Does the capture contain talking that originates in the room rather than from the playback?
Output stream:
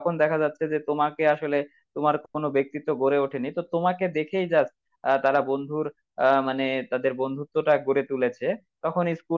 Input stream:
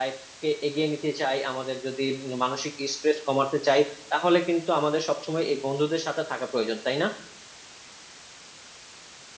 Yes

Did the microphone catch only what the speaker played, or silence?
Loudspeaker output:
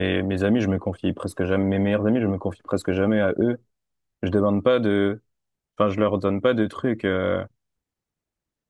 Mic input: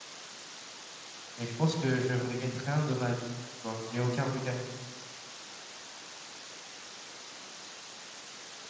No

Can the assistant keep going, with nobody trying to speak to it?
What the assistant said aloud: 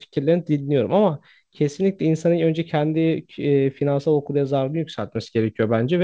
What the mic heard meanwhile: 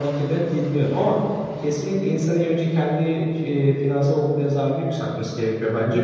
Yes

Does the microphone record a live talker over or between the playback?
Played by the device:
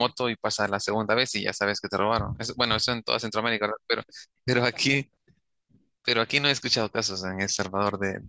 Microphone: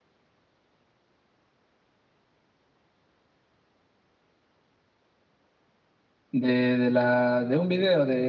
Yes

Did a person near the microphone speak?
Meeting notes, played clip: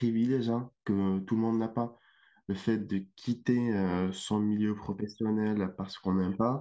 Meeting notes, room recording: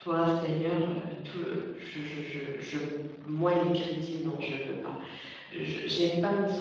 Yes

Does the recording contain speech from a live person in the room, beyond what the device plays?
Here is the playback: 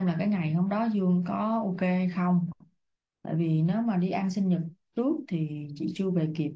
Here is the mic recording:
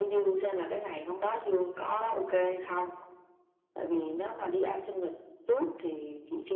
No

